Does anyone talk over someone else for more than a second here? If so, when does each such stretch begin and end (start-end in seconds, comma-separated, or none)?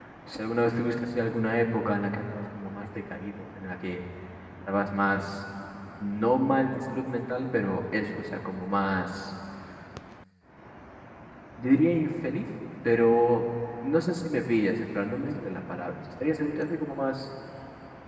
none